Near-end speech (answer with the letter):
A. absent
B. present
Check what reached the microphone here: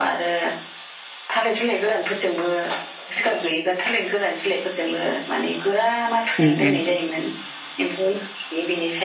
B